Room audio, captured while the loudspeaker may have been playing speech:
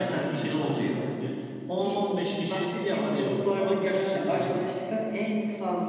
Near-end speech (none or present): none